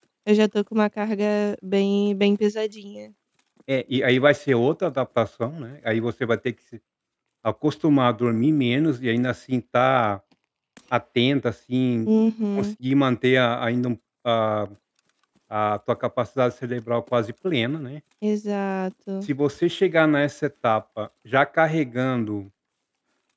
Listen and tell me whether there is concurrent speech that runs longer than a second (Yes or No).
No